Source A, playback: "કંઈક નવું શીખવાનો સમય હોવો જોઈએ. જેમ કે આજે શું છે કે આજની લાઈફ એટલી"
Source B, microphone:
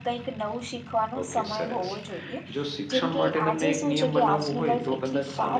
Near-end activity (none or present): present